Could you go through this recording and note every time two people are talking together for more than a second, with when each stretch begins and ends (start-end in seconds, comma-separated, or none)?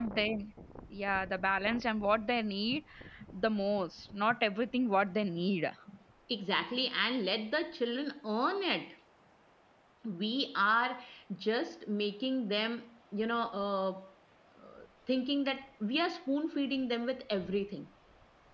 none